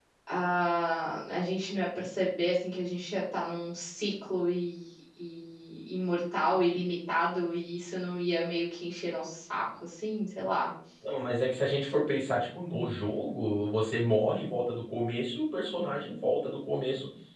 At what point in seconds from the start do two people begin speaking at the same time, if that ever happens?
none

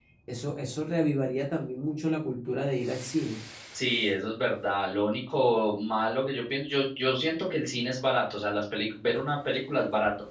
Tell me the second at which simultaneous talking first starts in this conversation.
none

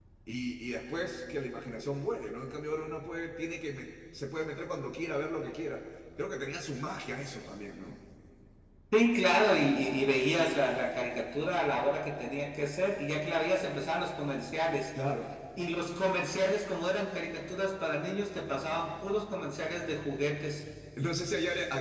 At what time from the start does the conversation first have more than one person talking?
none

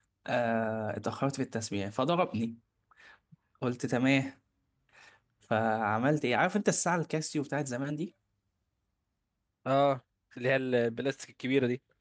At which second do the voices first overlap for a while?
none

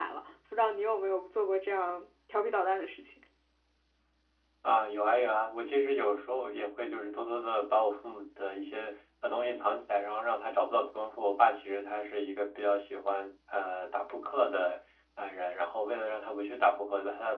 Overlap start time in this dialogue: none

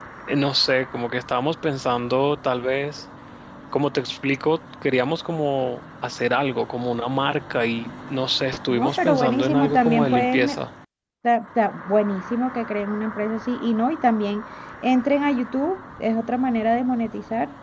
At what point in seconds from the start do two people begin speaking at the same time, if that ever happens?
9 s

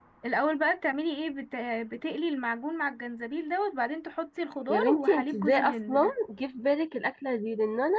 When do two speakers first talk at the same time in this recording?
5 s

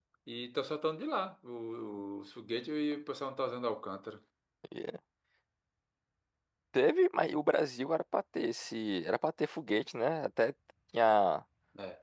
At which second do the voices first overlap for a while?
none

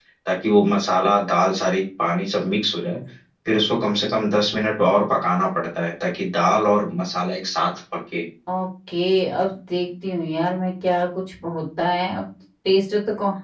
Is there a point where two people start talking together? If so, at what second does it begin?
none

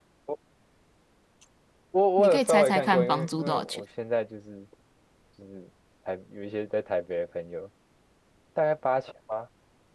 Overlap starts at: 2 s

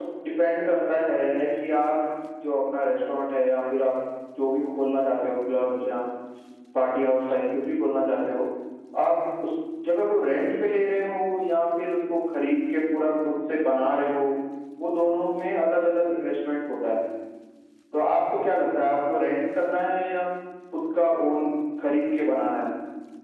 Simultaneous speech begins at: 1 s

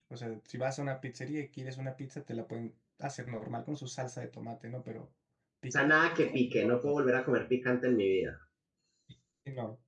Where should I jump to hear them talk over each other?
6 s

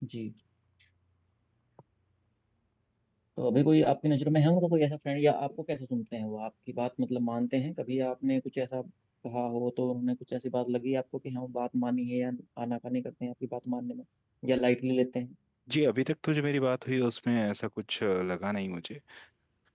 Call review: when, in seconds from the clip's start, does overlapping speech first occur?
none

